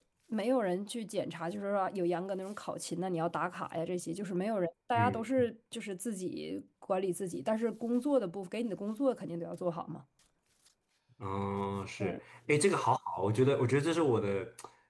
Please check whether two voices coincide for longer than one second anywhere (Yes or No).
No